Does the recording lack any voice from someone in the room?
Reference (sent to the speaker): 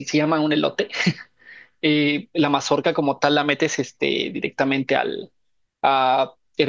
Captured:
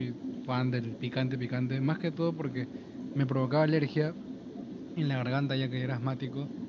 No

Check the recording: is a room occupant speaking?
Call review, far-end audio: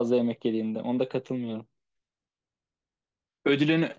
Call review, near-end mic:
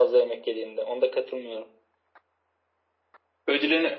No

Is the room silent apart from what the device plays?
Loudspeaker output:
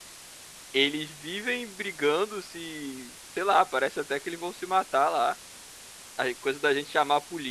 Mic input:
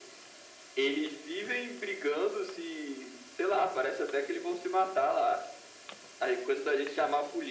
Yes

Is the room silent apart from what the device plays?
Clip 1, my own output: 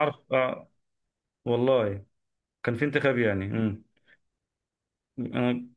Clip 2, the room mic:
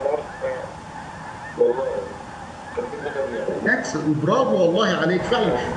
No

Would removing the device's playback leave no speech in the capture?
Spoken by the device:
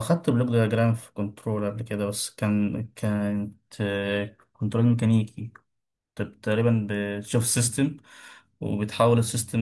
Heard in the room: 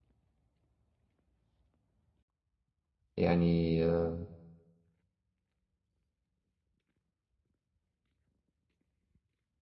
No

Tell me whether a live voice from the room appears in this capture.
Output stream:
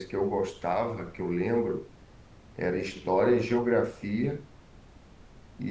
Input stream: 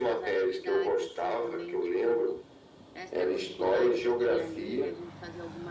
Yes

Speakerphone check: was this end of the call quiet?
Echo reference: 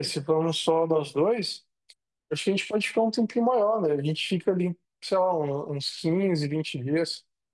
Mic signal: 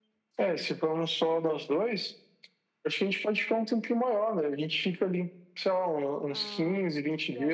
No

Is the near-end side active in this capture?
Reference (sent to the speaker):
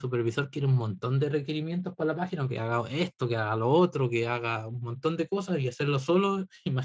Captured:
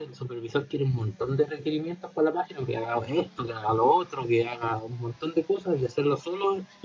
No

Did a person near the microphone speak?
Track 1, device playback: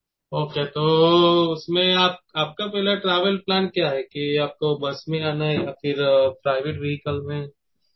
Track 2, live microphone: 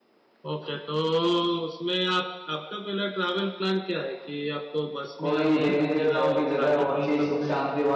Yes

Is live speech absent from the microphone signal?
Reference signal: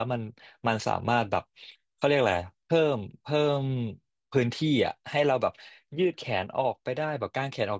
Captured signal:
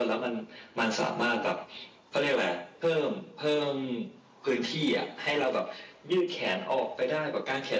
Yes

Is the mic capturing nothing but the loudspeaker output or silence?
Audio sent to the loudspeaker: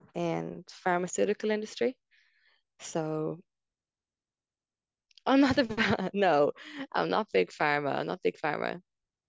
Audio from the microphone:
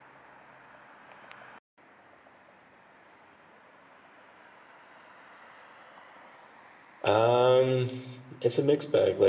No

